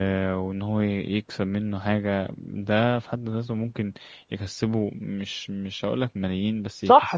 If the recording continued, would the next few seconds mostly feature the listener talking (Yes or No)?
Yes